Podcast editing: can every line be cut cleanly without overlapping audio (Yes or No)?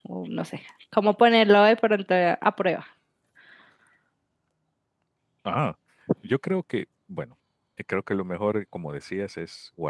Yes